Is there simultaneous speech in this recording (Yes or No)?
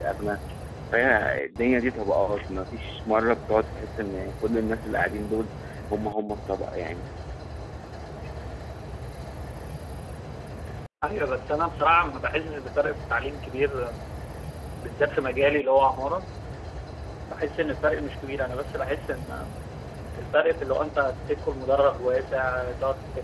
No